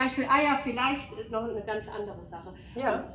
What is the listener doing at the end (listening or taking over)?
listening